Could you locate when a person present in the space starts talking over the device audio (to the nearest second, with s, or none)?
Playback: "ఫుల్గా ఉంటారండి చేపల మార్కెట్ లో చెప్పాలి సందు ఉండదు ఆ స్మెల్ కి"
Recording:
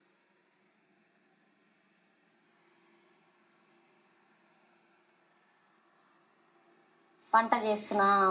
7 s